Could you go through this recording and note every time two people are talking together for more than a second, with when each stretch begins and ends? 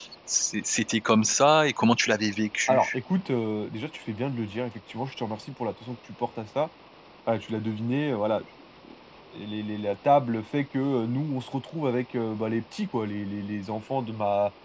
none

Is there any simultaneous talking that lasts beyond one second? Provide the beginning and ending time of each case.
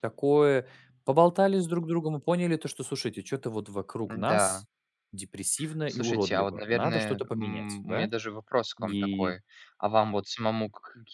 5.9-8.1

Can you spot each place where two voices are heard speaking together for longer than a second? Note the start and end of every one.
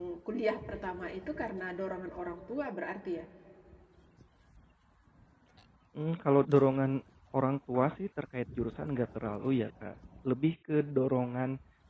none

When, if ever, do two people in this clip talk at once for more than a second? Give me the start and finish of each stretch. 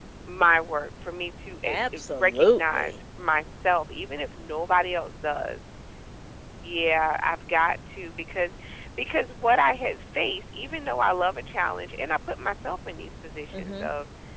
1.6-3.0

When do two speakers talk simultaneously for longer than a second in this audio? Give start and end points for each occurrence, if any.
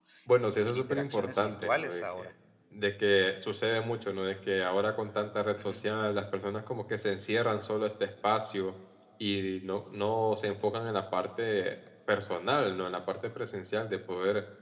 0.7-2.3

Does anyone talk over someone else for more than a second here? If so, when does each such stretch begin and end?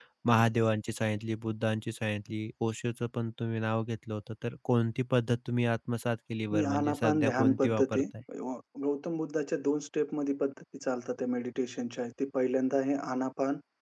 6.5-8.0

